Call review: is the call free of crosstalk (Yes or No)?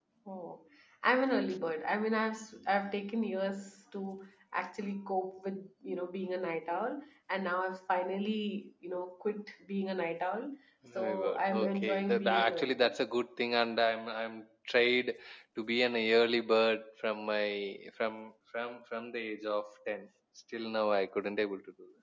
No